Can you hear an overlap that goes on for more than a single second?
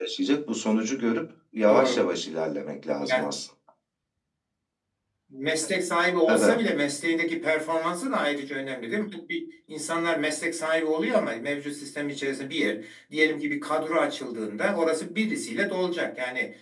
No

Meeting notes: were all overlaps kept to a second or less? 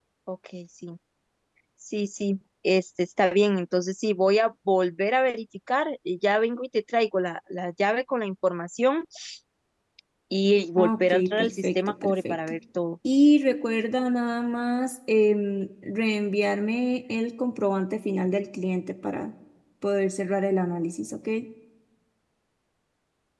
No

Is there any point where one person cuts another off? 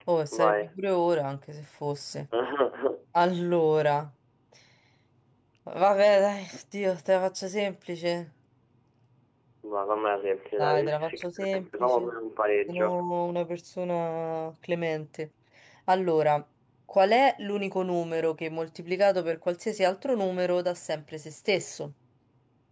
Yes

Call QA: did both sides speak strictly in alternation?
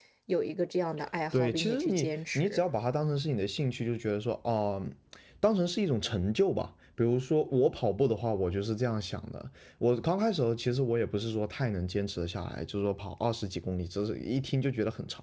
No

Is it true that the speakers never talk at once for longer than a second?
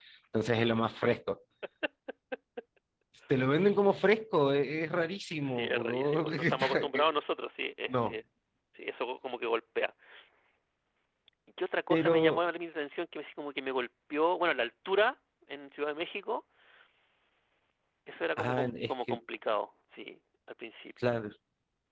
No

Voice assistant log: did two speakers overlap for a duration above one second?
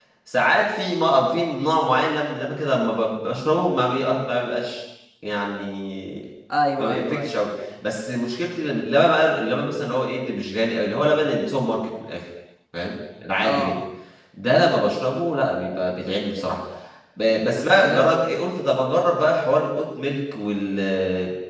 No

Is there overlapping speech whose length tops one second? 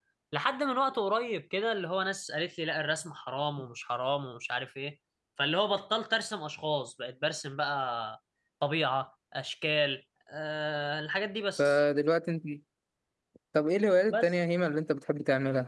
No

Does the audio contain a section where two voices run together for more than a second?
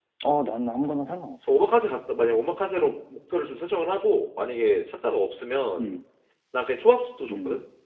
No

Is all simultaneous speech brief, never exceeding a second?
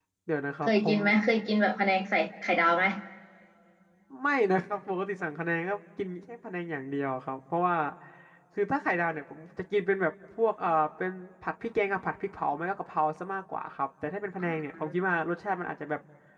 Yes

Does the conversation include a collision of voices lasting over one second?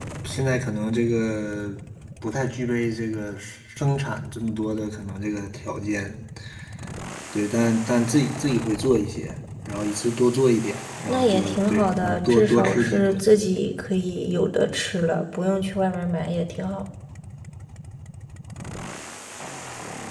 Yes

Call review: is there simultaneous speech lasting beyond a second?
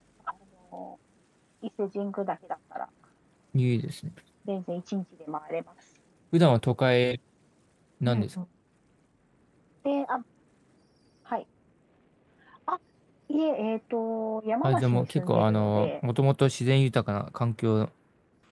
Yes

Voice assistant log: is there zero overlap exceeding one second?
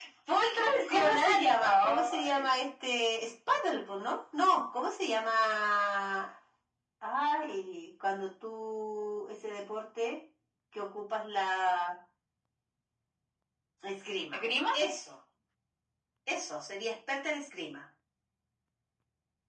No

